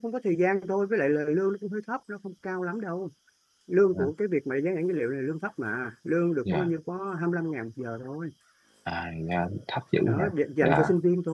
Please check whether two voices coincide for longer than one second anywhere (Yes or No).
No